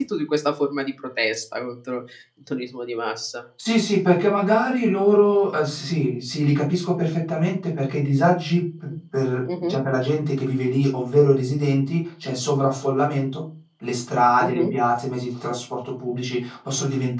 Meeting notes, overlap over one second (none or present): none